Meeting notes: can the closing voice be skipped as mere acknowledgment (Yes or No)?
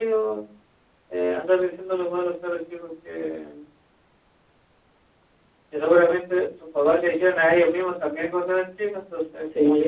No